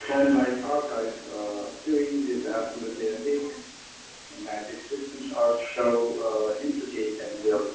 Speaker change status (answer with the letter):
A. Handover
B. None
A